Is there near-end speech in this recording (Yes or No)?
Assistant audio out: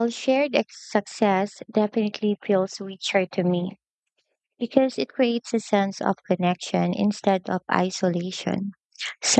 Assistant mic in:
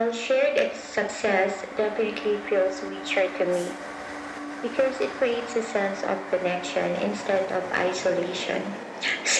No